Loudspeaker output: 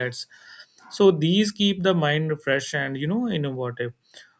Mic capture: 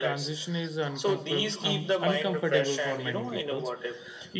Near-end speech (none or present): present